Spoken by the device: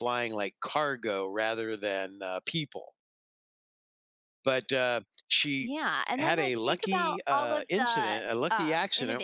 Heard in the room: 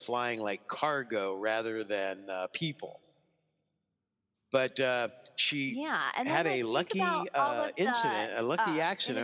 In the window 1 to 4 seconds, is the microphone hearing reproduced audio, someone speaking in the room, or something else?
echo only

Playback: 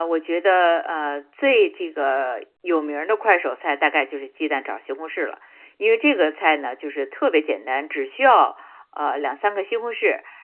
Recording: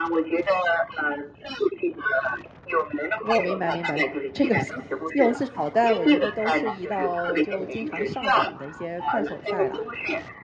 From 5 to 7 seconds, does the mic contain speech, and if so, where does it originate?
both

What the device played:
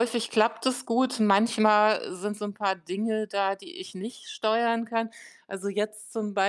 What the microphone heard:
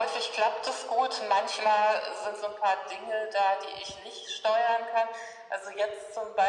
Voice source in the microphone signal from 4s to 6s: echo only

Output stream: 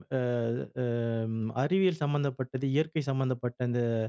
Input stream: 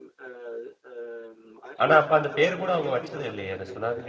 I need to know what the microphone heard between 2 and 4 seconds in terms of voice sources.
both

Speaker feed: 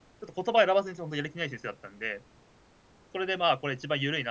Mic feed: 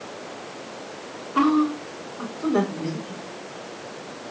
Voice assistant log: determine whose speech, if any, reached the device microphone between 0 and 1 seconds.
neither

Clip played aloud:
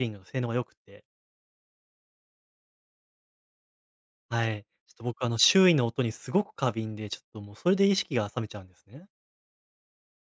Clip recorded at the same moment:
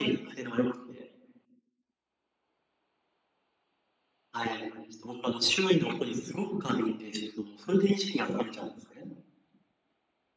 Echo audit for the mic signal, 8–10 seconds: echo only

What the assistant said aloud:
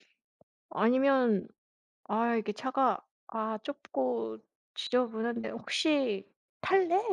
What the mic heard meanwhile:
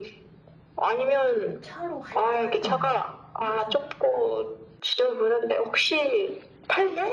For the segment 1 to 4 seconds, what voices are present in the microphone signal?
both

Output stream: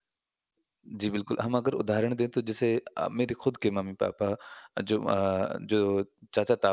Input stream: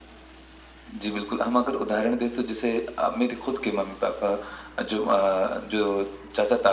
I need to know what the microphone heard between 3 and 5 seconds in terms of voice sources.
echo only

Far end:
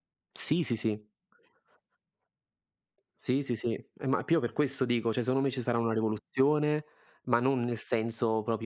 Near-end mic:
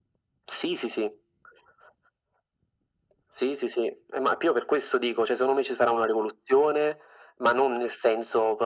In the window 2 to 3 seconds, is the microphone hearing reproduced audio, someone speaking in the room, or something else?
neither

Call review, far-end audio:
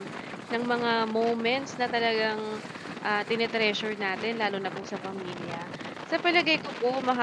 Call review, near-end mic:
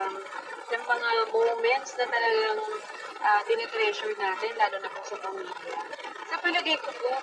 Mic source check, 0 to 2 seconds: echo only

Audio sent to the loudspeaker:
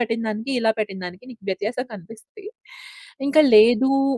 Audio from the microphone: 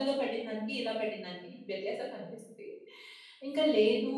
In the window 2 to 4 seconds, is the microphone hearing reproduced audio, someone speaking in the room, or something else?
echo only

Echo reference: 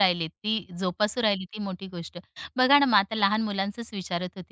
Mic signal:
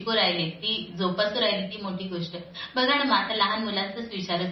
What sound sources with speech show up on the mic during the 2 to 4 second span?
echo only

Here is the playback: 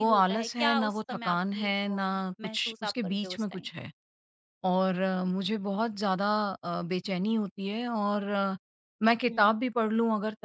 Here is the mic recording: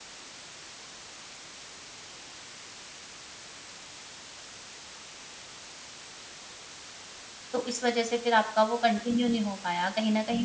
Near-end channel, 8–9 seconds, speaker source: user only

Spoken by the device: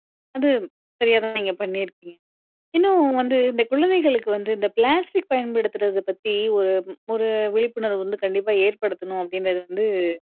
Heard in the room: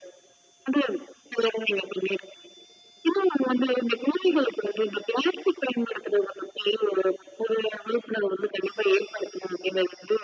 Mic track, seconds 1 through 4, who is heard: echo only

